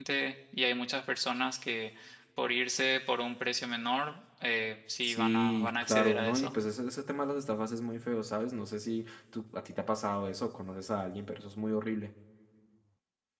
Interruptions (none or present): present